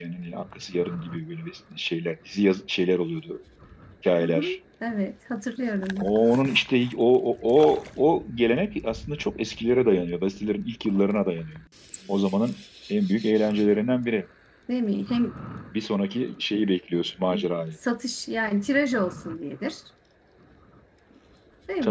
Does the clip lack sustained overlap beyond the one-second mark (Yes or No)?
Yes